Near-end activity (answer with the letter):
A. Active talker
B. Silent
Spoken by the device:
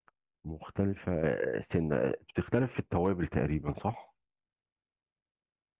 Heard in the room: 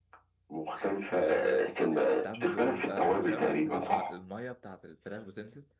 A